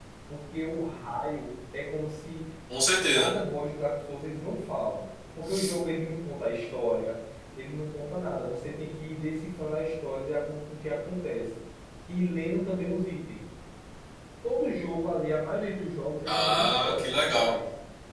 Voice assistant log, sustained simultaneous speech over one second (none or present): present